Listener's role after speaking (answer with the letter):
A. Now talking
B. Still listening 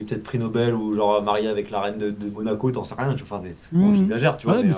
A